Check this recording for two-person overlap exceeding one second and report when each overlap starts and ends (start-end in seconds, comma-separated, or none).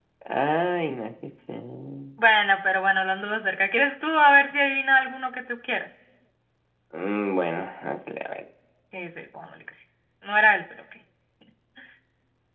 none